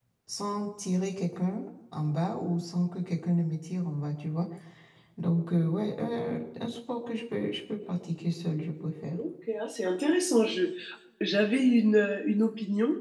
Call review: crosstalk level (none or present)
none